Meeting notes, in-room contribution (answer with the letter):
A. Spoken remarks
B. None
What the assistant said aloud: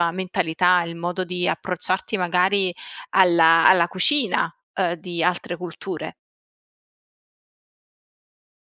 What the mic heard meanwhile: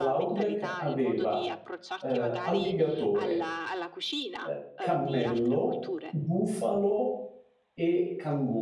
A